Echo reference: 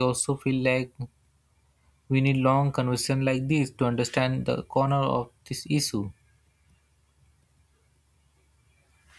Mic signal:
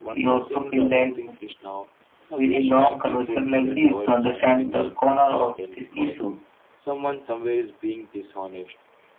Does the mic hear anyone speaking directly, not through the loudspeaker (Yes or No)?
Yes